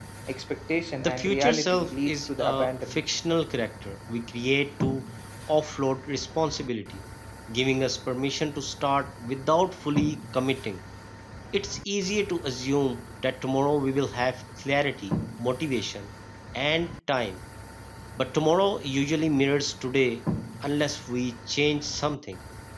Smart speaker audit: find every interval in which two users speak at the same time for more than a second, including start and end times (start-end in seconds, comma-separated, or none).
1.0-3.0